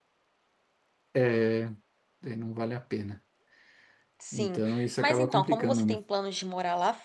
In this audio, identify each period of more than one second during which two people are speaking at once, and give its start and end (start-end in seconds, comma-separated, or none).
4.3-6.0